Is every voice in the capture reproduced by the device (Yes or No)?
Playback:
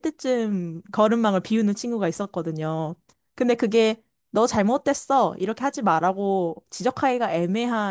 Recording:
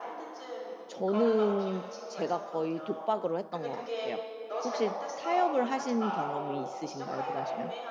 No